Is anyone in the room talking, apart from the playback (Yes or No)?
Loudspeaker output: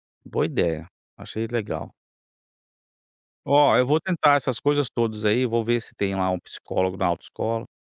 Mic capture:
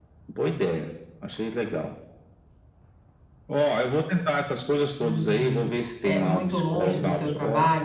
Yes